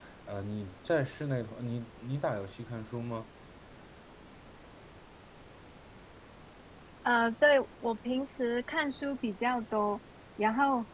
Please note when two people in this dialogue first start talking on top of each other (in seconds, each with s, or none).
none